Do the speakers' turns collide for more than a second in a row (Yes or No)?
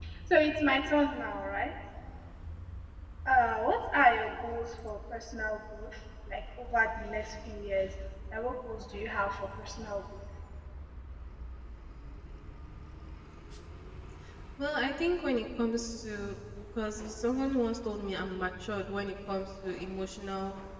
No